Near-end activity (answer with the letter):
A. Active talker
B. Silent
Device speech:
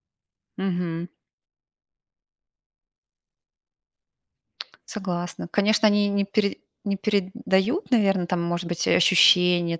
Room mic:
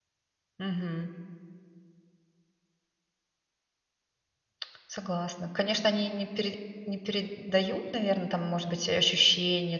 B